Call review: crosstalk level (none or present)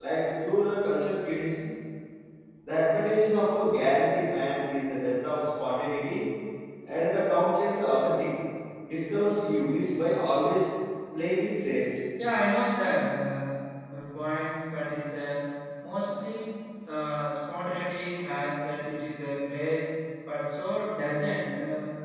none